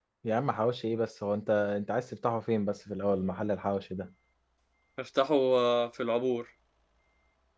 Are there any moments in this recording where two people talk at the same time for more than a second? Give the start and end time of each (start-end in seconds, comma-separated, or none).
none